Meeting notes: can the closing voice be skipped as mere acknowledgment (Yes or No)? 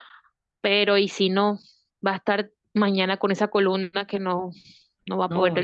No